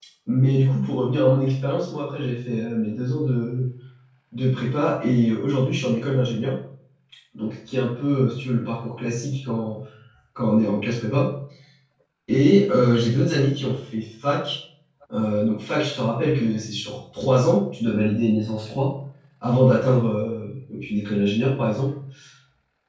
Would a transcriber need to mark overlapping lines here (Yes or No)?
No